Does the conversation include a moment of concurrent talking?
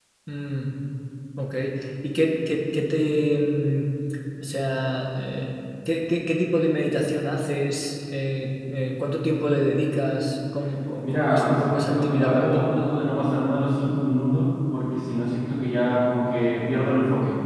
Yes, from 11.0 s

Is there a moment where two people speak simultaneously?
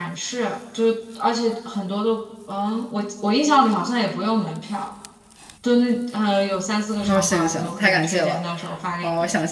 Yes, from 7.0 s

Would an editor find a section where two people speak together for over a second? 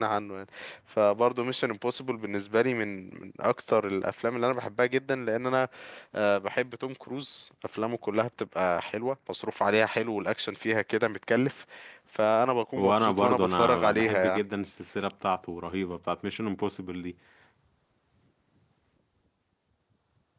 Yes, from 12.8 s

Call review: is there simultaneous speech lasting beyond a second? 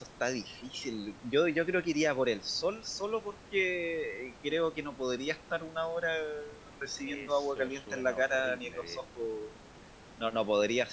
Yes, from 7.0 s

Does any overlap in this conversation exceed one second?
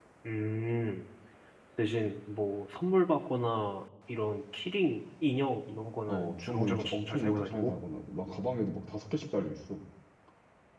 Yes, from 6.1 s

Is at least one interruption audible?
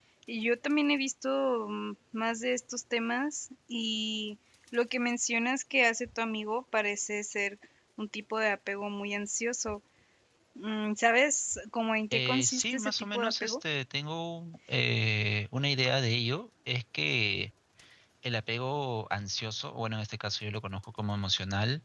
Yes, from 12.1 s

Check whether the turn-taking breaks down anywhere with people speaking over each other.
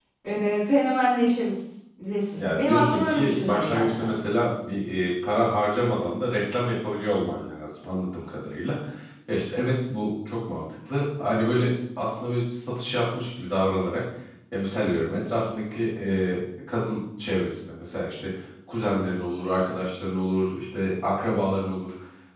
Yes, from 2.4 s

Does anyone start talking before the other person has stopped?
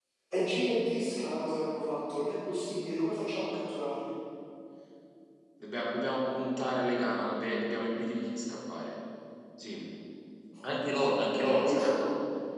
Yes, from 10.7 s

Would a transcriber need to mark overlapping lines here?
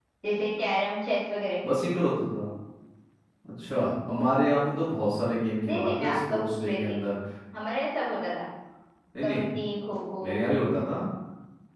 Yes, from 5.6 s

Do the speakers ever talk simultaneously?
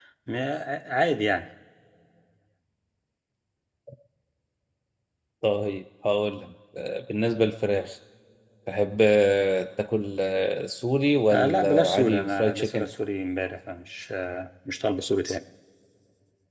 Yes, from 11.3 s

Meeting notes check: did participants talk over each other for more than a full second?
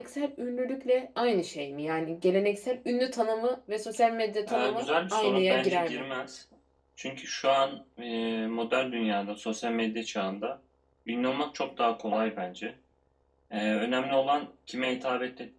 Yes, from 4.5 s

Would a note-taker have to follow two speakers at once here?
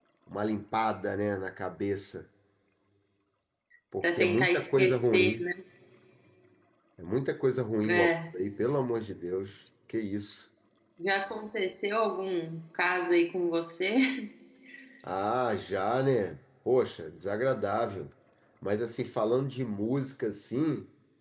Yes, from 4.0 s

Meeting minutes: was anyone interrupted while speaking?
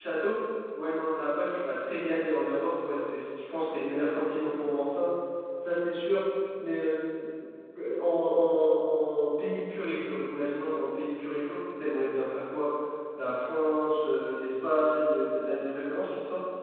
No

